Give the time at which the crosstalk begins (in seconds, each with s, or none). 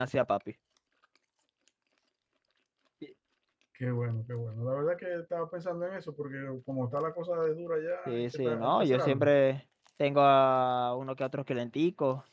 8.1 s